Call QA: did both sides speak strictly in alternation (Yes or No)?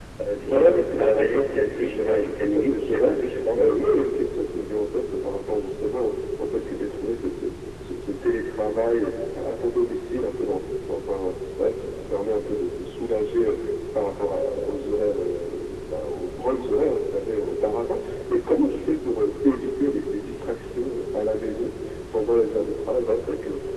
No